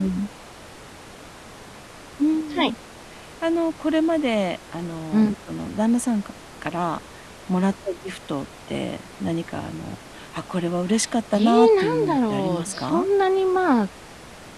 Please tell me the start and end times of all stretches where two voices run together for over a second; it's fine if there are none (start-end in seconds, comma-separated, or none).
11.4-13.1